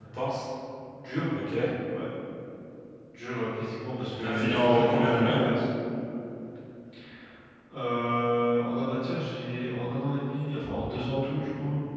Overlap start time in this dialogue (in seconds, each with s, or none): 4.2 s